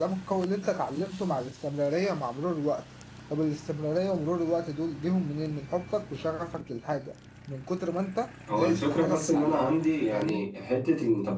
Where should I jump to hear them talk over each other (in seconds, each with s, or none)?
8.5 s